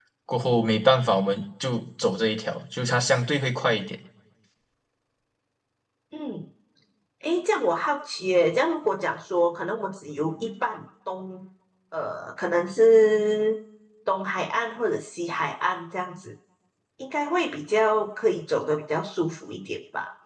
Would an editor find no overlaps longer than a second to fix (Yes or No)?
Yes